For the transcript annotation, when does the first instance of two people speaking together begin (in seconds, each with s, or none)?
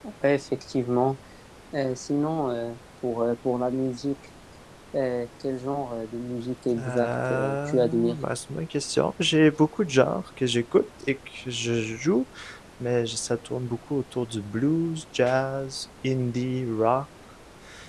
6.7 s